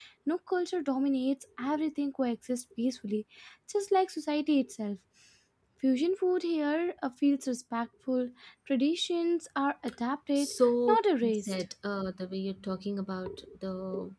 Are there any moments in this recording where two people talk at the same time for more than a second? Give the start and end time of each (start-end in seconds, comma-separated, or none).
10.3-11.6